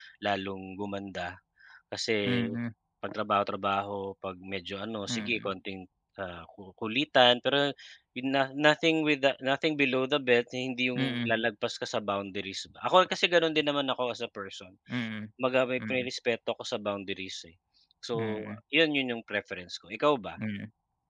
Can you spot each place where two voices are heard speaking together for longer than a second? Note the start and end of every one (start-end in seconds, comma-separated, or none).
none